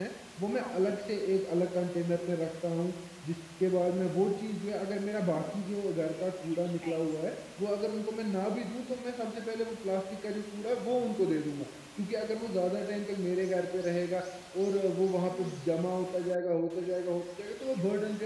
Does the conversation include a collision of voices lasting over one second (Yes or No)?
No